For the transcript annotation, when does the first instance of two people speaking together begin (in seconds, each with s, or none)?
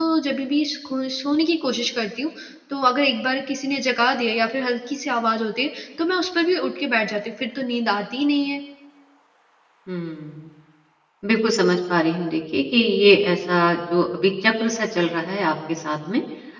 none